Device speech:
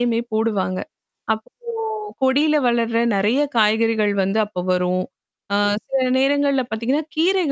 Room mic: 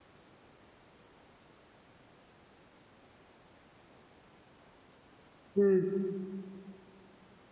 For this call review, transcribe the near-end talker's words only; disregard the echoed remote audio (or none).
ம்.